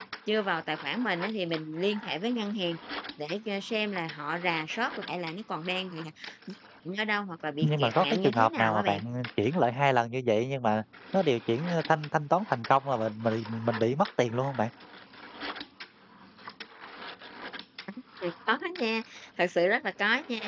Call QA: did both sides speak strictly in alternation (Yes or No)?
No